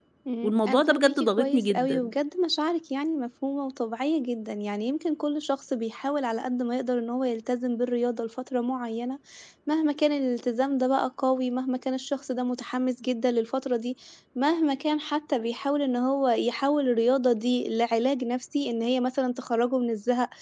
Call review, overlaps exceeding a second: present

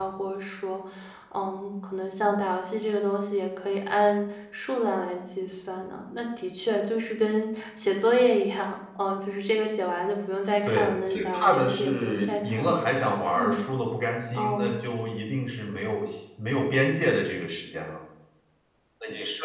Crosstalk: present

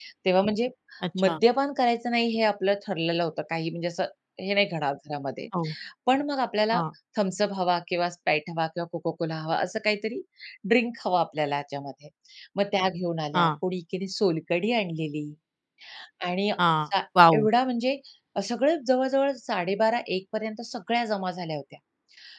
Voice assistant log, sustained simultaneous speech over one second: none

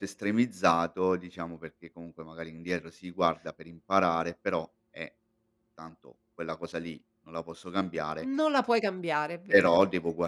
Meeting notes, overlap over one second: none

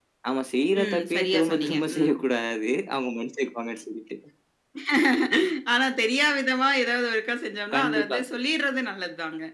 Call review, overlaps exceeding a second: present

